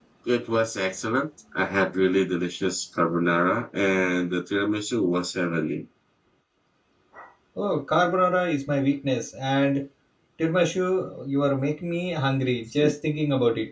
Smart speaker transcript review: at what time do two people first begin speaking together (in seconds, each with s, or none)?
none